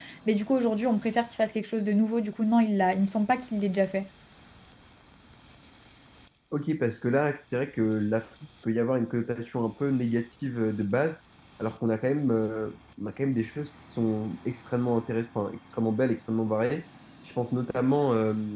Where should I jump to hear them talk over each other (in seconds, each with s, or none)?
none